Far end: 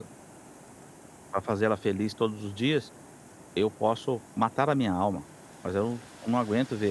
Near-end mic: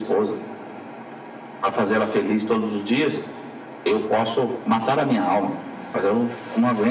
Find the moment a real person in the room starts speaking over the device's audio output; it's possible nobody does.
none

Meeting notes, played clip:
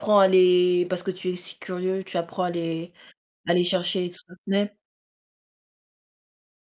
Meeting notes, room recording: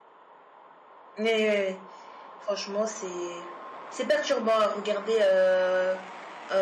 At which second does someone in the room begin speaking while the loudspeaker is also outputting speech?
1.2 s

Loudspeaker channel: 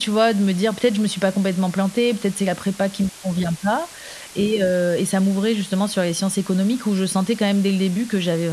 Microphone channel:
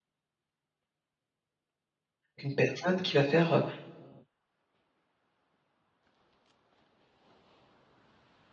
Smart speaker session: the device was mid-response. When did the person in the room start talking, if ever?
2.4 s

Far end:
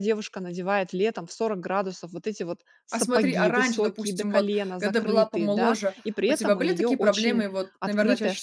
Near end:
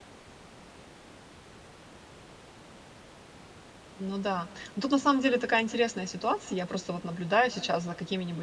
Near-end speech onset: 4.0 s

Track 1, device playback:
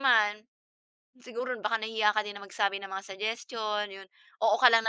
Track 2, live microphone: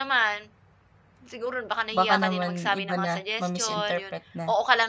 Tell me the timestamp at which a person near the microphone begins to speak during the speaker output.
1.9 s

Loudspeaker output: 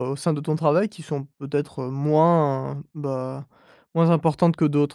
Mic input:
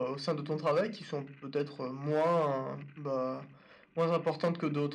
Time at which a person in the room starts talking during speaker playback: none

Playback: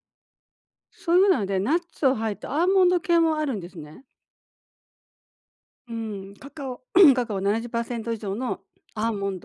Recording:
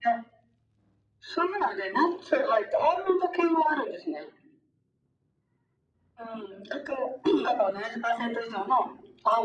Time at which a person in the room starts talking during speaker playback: none

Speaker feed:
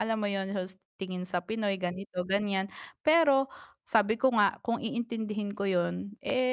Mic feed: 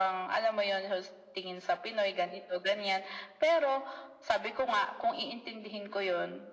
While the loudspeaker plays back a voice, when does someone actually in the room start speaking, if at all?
none

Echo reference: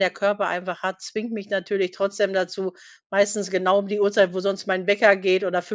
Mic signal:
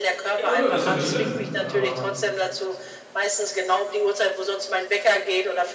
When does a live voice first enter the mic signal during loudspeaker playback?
0.4 s

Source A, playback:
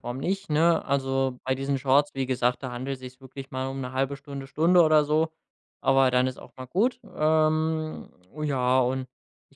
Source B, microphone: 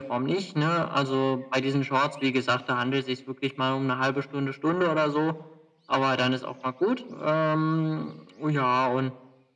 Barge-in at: none

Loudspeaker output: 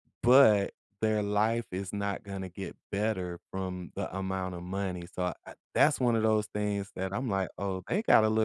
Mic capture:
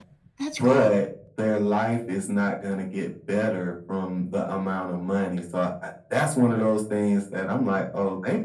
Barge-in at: 0.4 s

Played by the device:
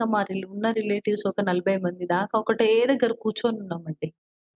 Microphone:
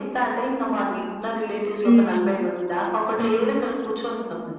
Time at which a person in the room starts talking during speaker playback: 1.8 s

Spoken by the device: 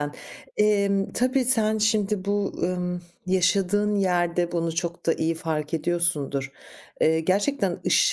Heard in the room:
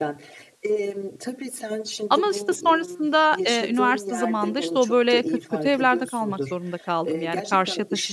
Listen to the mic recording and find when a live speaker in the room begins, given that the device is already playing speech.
2.1 s

